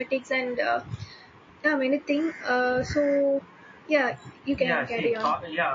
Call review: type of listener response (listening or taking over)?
taking over